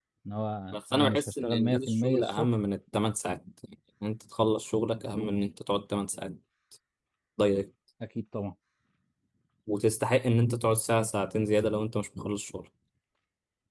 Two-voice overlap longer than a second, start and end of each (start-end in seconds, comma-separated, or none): 0.7-2.5